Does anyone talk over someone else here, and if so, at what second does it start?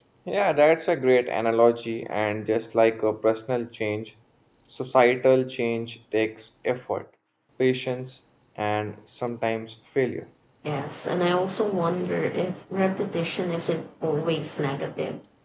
none

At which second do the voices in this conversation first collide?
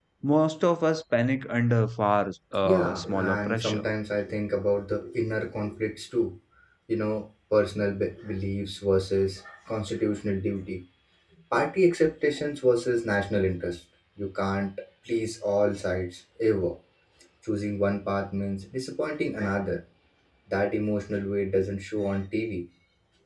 2.6 s

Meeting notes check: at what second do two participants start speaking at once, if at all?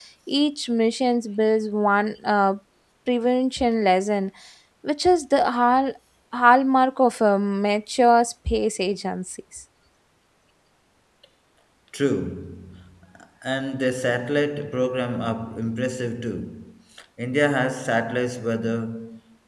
none

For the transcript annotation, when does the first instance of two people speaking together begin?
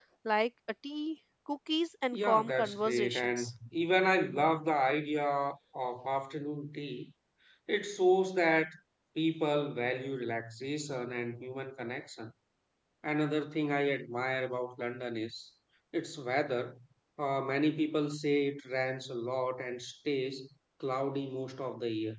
2.1 s

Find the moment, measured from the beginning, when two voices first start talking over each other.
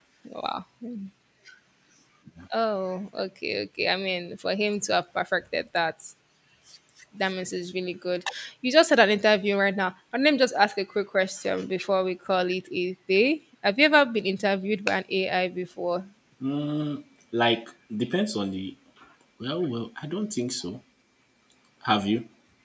none

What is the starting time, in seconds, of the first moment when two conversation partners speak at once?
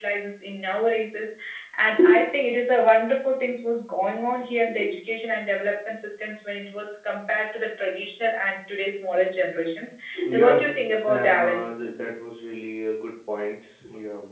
10.2 s

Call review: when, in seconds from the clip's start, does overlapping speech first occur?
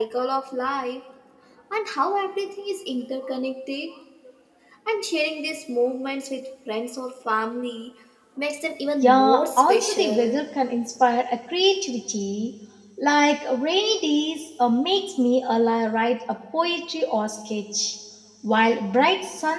9.0 s

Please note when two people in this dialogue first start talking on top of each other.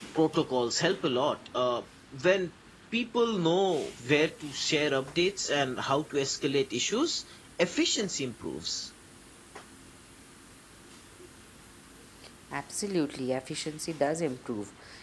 none

